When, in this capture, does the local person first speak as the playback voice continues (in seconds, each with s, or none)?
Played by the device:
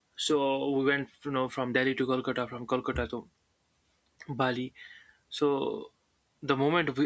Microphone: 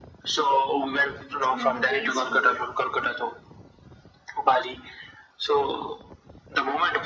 1.3 s